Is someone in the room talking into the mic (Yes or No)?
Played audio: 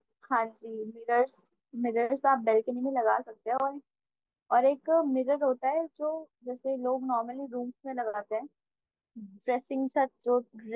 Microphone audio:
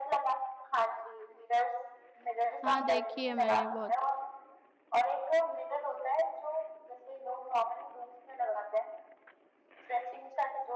Yes